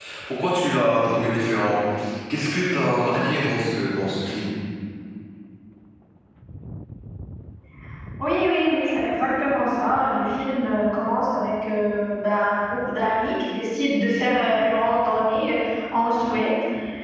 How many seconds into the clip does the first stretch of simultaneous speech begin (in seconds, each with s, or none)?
none